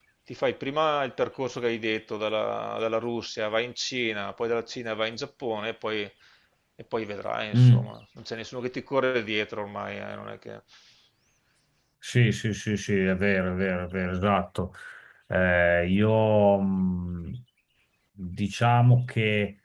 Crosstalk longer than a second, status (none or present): none